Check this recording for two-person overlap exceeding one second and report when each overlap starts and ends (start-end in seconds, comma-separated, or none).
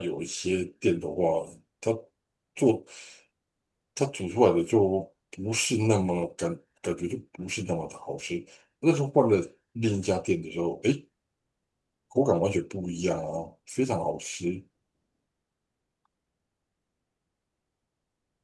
none